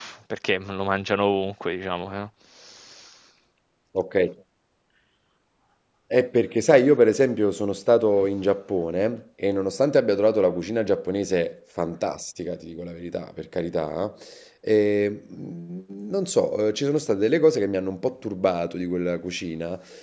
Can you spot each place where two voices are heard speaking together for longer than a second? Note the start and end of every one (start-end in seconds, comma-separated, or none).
none